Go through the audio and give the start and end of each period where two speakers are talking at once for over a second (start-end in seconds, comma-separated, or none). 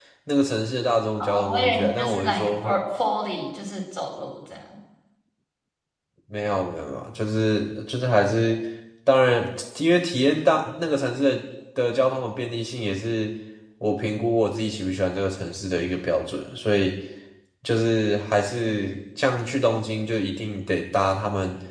1.2-2.5